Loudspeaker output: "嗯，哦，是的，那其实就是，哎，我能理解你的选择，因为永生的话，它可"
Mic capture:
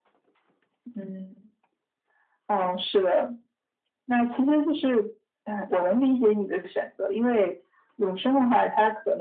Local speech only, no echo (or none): none